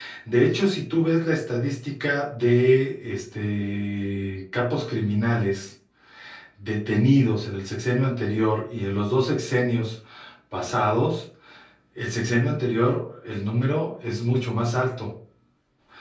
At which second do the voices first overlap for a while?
none

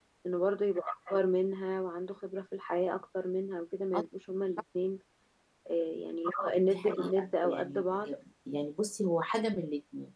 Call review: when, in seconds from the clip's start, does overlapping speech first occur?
6.7 s

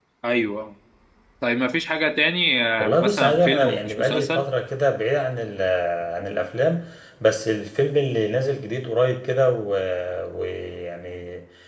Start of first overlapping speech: 2.8 s

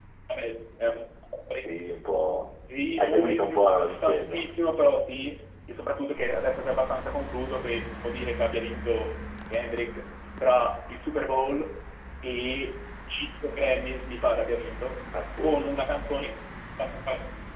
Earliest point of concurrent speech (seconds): 3.0 s

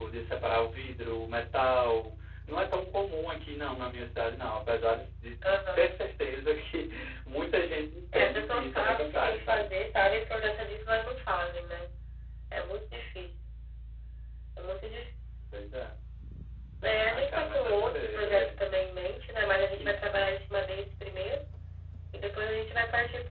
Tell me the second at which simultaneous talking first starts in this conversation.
8.1 s

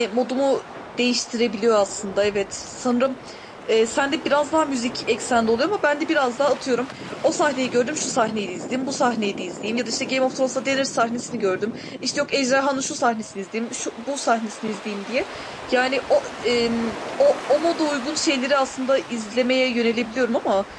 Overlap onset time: none

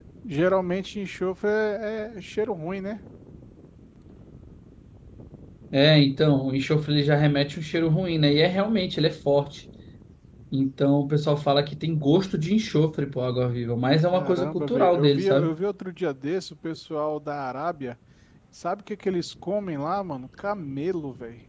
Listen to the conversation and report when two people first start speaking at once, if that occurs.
14.0 s

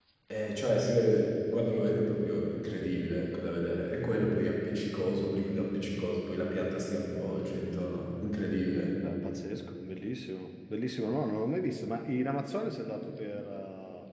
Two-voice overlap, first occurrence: none

